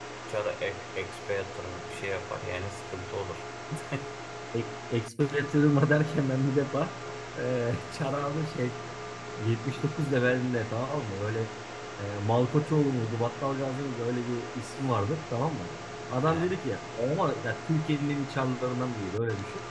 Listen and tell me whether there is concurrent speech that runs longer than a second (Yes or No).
No